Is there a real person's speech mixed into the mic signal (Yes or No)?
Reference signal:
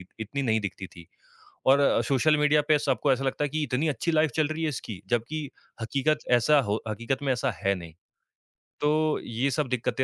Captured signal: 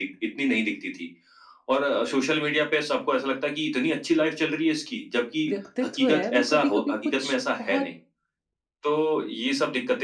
Yes